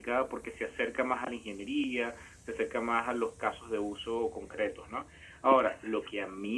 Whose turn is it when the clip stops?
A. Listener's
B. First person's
B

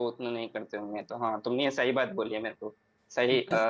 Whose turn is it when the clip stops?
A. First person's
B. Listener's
A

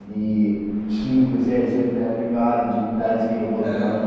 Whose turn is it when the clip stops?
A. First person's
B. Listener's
A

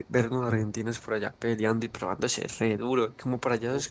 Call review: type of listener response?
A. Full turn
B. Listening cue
B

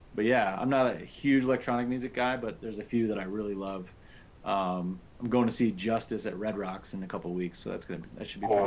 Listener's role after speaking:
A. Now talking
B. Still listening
A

